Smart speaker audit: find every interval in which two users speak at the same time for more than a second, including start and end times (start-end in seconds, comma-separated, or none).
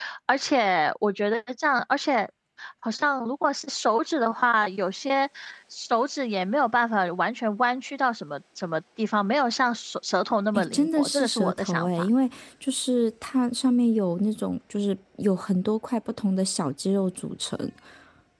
10.5-12.1